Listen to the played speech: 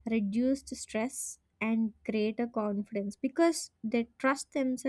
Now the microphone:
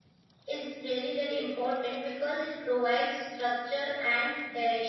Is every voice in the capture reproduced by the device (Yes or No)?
No